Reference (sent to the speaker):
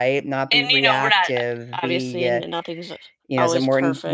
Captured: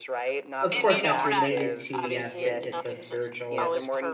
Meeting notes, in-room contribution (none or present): present